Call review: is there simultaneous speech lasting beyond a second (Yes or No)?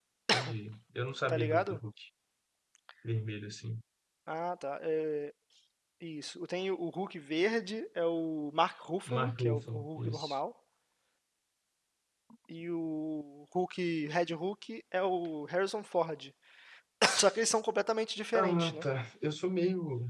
Yes